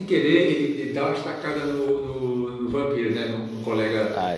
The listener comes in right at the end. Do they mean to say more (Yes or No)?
No